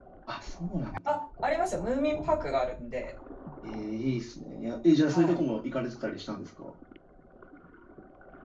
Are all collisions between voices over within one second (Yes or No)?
Yes